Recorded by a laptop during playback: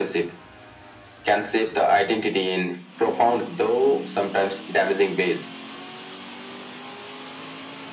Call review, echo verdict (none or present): present